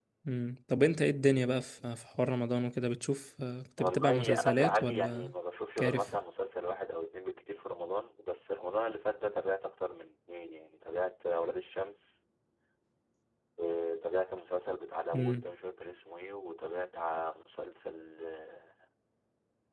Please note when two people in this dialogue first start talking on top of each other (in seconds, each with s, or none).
3.8 s